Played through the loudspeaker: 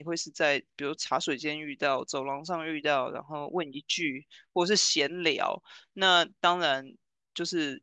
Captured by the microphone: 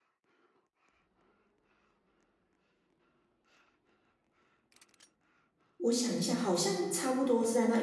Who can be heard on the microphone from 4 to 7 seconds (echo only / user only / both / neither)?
user only